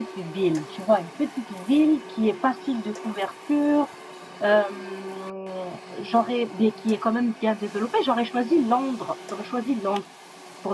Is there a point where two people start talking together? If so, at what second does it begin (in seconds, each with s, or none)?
none